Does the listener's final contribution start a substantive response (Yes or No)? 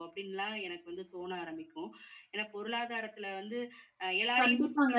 Yes